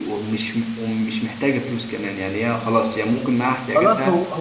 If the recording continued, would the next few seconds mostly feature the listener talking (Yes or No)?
Yes